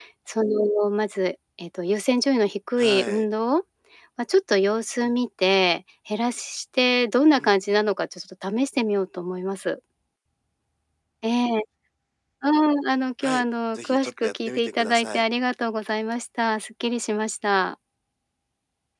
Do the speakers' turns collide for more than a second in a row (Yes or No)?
Yes